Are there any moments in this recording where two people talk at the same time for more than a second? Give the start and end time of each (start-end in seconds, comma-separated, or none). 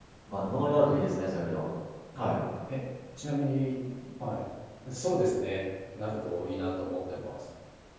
none